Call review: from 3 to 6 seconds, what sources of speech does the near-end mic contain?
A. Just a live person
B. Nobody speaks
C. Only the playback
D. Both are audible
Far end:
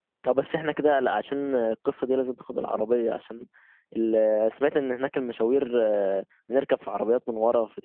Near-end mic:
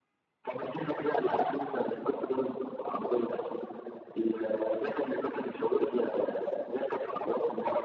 C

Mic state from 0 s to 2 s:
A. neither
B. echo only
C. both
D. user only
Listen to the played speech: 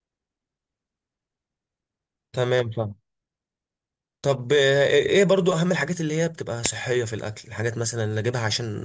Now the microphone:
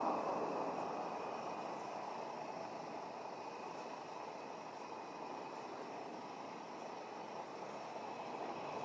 A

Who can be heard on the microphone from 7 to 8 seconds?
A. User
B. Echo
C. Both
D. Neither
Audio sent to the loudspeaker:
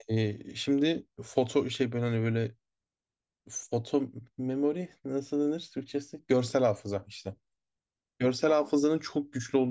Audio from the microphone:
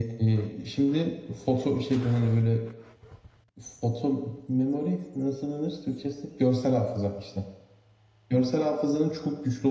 B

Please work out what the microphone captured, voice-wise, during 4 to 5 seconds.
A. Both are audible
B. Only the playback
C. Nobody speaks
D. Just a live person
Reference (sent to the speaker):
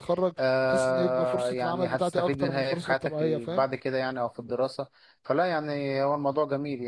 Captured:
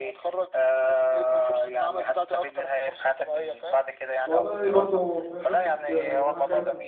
A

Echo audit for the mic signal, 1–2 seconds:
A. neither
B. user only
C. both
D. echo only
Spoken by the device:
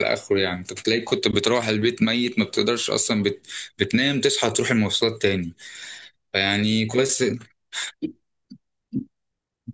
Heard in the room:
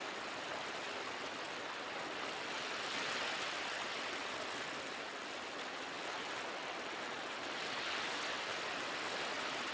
A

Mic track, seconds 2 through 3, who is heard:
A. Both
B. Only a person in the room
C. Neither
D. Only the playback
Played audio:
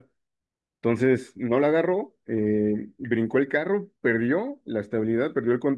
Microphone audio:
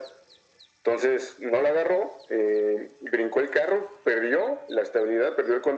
D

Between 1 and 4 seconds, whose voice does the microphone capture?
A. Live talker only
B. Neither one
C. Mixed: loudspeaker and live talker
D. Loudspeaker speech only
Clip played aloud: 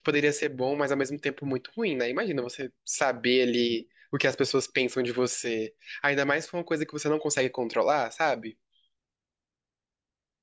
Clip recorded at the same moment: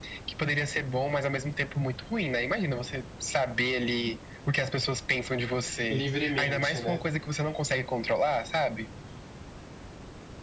D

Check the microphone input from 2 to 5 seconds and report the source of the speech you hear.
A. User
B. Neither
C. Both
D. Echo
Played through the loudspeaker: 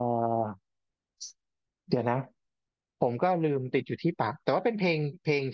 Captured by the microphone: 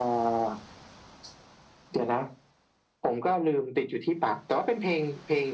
D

